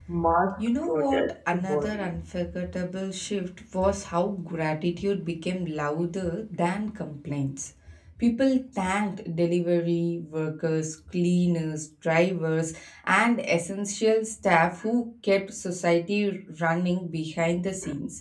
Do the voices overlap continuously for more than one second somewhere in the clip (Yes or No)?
Yes